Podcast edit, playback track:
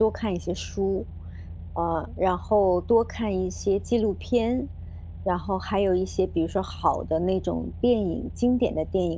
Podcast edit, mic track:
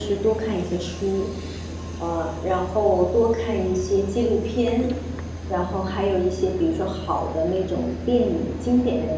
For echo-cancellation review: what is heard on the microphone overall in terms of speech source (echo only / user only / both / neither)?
echo only